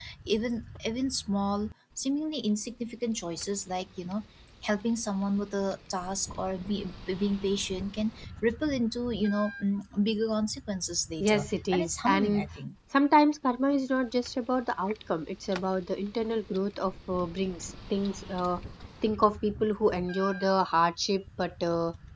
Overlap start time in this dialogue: 11.2 s

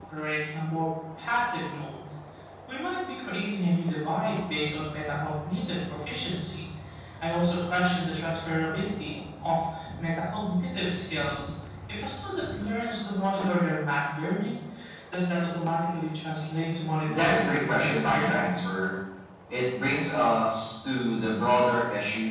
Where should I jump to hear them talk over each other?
17.1 s

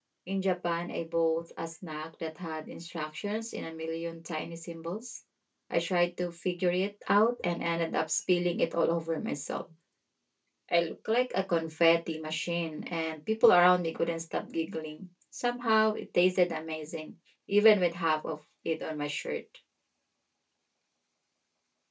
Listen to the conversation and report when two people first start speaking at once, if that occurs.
none

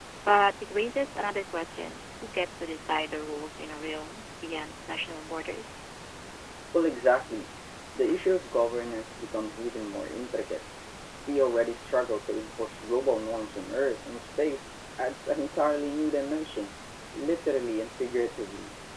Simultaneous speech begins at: none

